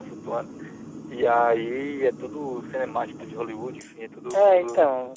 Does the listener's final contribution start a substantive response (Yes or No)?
Yes